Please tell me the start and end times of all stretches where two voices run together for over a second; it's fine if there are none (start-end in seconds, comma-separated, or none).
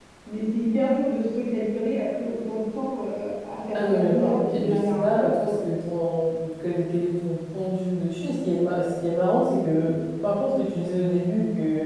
3.7-5.5